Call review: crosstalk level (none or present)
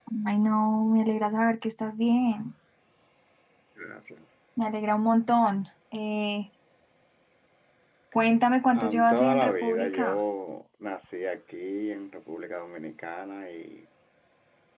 present